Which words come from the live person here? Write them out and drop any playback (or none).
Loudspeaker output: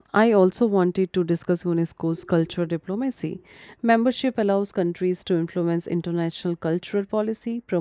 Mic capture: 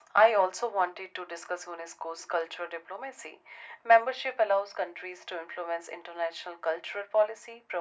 none